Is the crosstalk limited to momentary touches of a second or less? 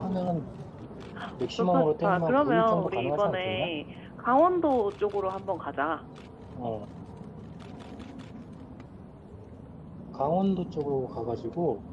No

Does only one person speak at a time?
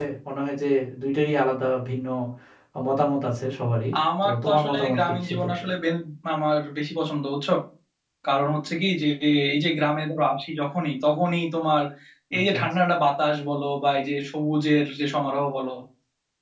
No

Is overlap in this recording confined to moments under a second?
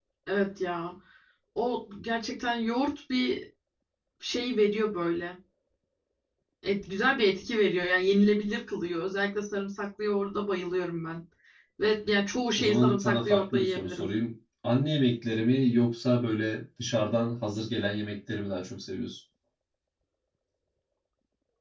No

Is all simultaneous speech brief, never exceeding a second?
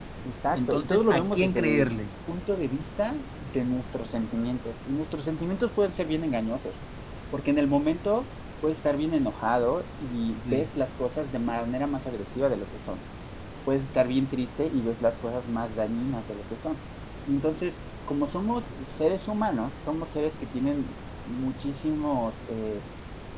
No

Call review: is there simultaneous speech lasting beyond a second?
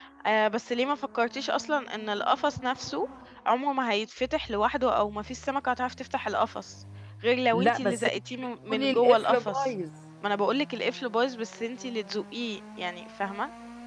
Yes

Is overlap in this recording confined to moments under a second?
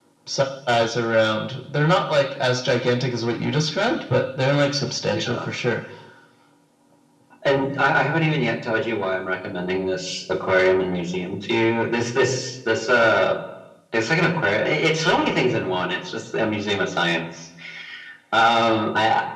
Yes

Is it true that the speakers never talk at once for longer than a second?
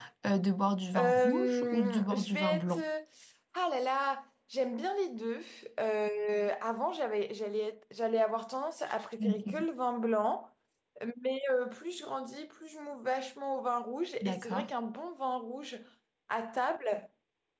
No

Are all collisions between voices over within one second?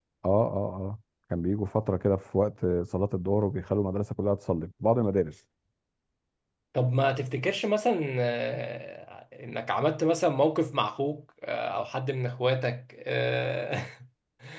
Yes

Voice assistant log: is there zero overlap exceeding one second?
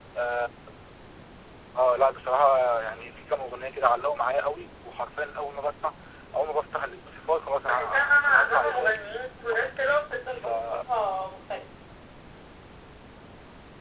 No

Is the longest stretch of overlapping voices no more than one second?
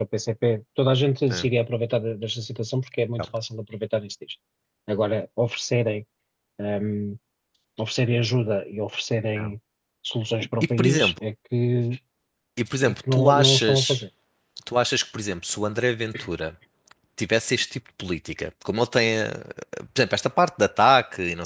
No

